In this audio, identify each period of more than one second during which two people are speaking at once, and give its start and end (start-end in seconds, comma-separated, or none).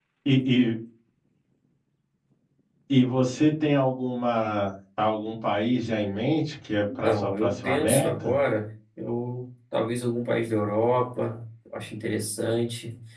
7.0-8.3